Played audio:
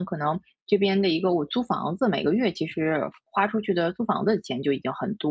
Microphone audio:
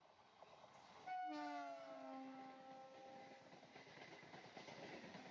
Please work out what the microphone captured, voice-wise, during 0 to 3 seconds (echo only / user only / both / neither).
neither